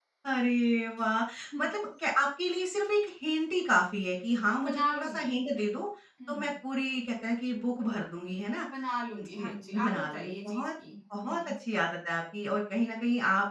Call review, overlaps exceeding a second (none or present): present